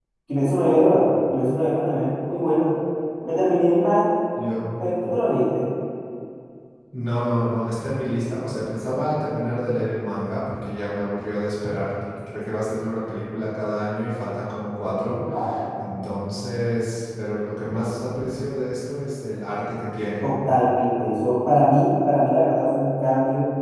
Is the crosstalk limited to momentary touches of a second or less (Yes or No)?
Yes